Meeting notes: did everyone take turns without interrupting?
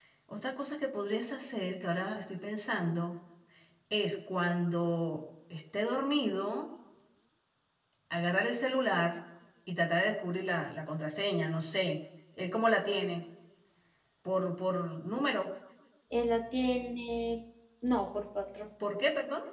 Yes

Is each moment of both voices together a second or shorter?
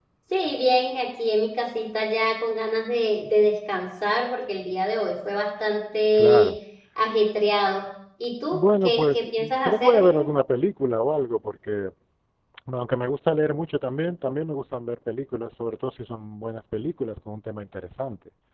No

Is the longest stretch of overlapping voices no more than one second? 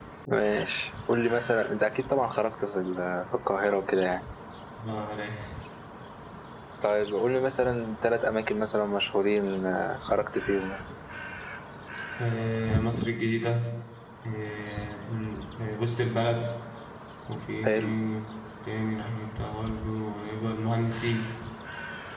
Yes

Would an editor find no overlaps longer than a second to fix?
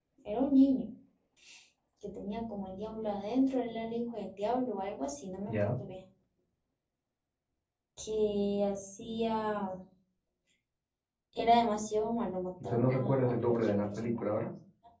No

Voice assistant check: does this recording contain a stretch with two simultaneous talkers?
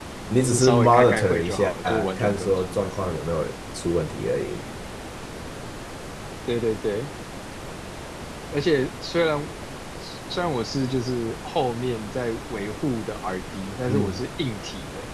Yes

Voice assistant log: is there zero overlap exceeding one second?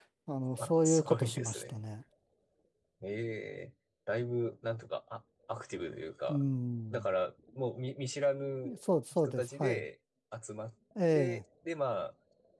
No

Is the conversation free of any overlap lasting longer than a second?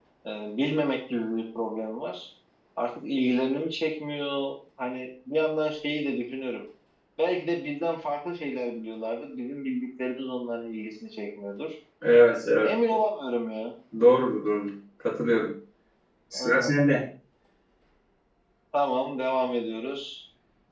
Yes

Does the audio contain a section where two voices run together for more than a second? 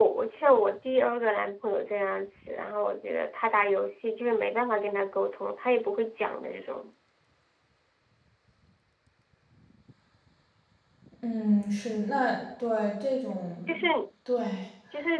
No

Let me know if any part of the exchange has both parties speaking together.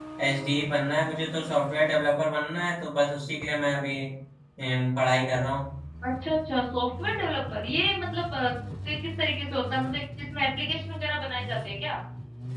No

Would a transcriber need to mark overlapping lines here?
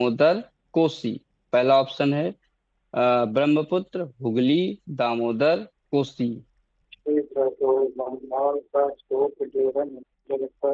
No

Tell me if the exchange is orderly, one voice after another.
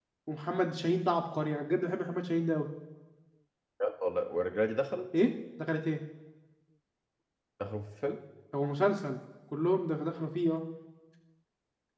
Yes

